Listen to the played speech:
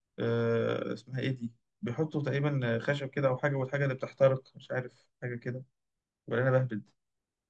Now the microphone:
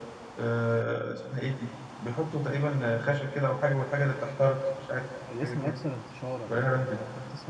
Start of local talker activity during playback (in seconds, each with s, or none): 5.3 s